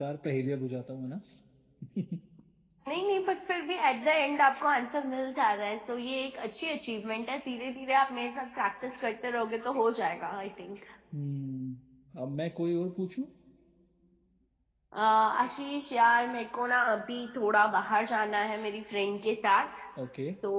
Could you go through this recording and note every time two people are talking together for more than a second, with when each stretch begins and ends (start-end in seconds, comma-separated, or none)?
none